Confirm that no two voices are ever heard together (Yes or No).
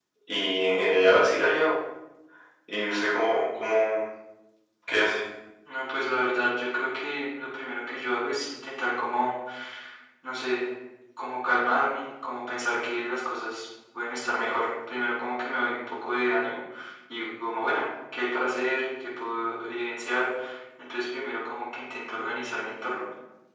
Yes